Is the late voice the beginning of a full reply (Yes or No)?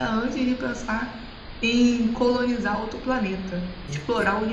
Yes